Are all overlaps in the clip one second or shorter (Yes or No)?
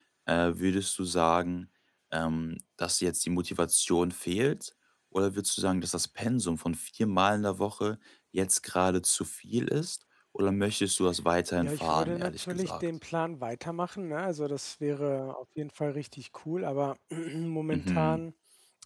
No